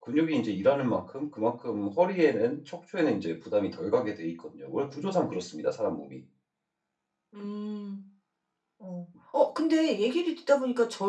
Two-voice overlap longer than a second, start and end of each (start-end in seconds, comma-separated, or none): none